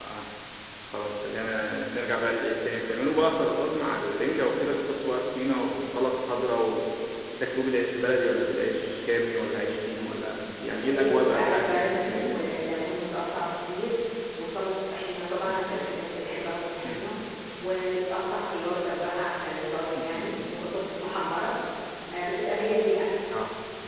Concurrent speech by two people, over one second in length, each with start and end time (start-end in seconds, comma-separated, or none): 10.8-12.5